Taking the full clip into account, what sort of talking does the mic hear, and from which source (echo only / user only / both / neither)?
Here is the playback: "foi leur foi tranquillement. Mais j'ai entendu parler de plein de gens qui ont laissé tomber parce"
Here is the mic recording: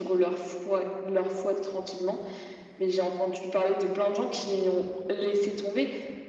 echo only